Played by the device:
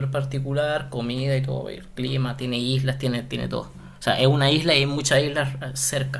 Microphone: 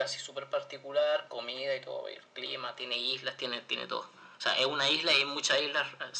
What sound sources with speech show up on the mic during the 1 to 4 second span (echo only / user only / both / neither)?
echo only